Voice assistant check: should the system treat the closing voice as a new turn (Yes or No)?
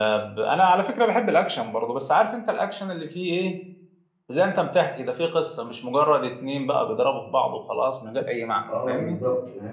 Yes